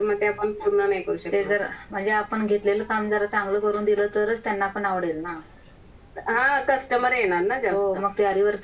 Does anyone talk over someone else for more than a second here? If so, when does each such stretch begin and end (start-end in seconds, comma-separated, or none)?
none